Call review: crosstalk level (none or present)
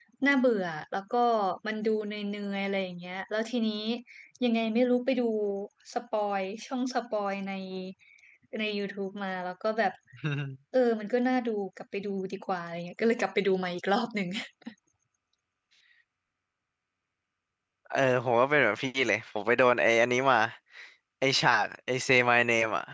none